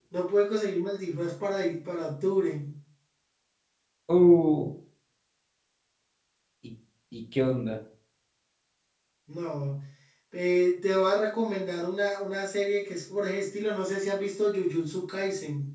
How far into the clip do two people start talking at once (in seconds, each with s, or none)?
none